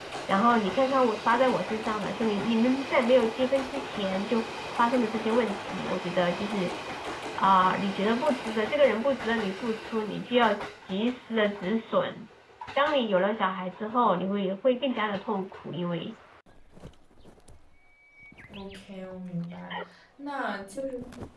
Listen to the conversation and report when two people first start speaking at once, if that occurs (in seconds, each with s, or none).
none